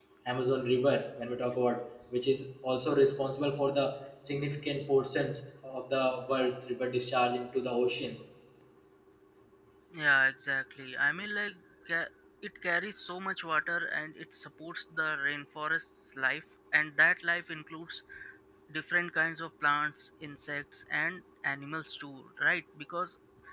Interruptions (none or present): none